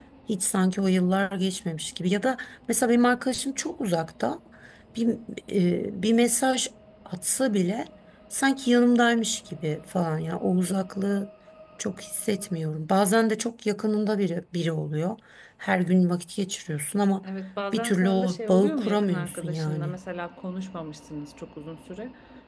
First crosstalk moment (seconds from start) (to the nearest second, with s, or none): 18 s